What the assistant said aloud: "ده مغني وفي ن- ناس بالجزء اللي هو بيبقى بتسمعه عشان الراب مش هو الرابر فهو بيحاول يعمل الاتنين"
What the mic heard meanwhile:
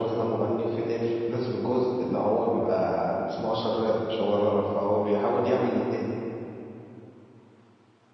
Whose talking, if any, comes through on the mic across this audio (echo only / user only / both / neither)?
echo only